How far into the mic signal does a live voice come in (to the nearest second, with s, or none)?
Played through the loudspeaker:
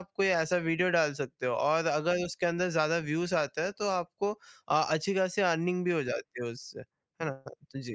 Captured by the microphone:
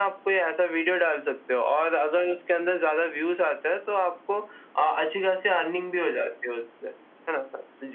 none